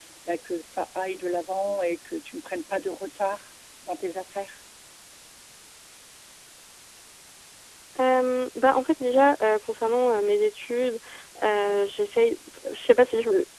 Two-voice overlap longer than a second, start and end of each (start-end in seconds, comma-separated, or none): none